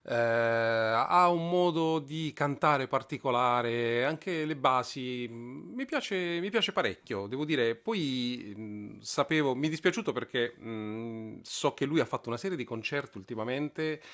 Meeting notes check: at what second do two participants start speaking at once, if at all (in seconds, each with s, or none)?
none